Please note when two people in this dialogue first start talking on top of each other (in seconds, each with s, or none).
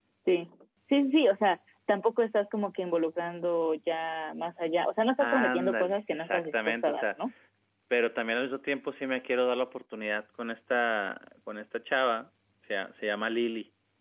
5.2 s